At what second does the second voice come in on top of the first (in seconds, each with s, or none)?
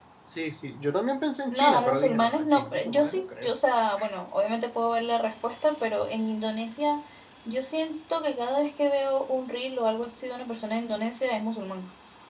1.5 s